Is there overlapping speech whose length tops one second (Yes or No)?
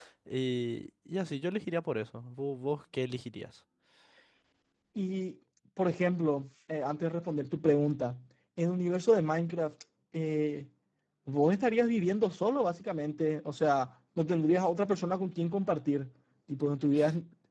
No